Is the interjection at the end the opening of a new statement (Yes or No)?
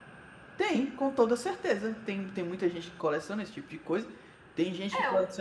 No